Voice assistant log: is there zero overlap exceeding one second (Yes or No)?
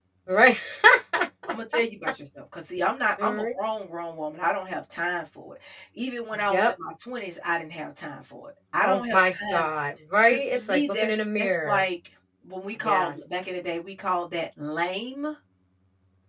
No